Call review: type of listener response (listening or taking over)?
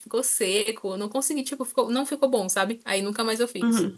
taking over